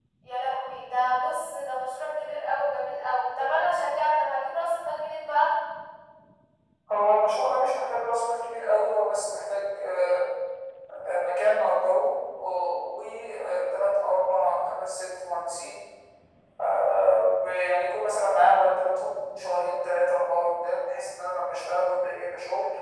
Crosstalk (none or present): none